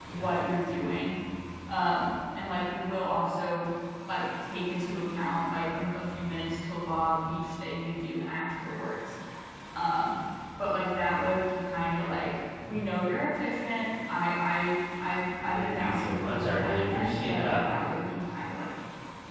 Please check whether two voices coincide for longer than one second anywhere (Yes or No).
Yes